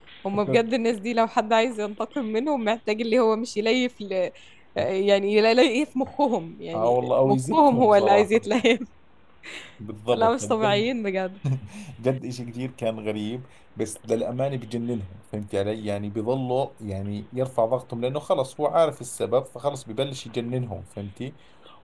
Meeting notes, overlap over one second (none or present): present